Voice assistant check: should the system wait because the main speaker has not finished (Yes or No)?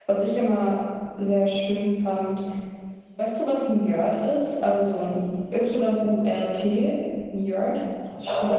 No